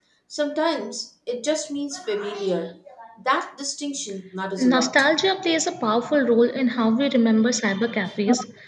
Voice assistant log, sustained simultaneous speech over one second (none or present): none